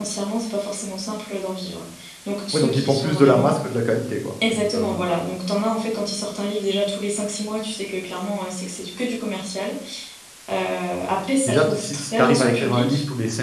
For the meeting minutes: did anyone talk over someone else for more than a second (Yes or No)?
Yes